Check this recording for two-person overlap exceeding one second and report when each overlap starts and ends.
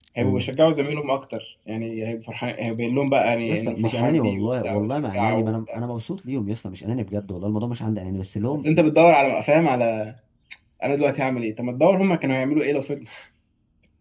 3.4-5.8

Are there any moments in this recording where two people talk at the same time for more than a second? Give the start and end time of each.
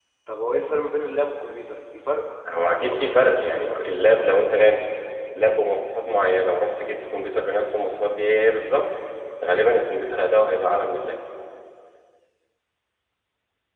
2.7-4.8

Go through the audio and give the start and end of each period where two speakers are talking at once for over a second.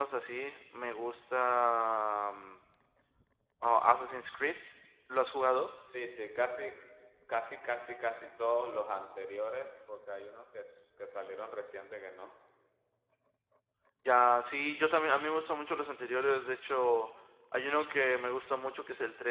none

